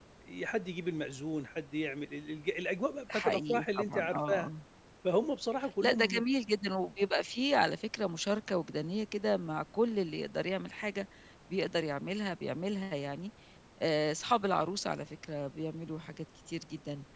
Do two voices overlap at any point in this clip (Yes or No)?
Yes